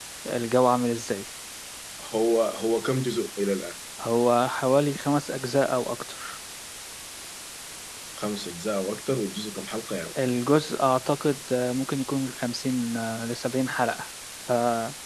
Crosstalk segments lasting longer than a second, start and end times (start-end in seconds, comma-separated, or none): none